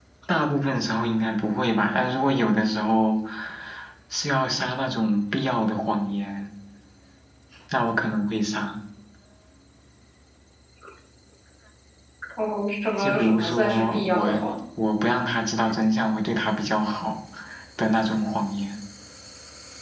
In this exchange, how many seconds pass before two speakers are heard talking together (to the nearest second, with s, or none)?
13 s